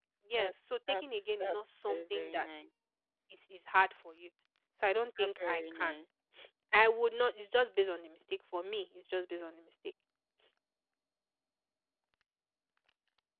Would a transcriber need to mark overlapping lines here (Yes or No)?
Yes